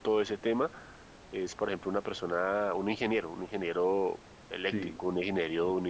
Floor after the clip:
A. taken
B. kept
B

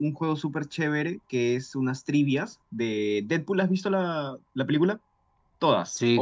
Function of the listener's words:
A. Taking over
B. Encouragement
A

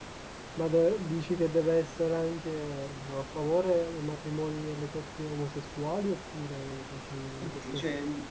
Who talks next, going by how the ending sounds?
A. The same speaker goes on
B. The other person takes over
B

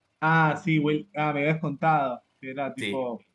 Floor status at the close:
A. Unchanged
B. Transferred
B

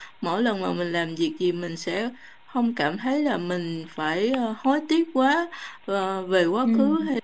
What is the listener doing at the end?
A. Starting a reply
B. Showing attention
B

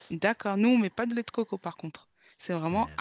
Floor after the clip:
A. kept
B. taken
A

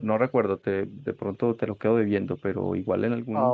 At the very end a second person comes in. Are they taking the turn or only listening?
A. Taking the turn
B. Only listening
B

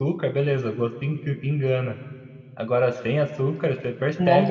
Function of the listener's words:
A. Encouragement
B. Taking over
A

